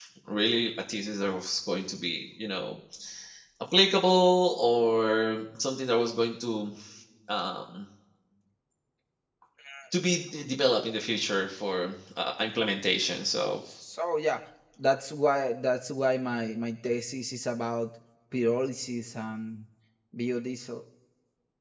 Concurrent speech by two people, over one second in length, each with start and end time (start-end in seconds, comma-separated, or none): none